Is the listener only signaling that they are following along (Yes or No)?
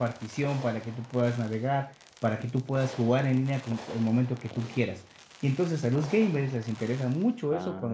Yes